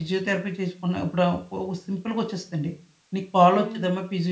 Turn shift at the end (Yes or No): No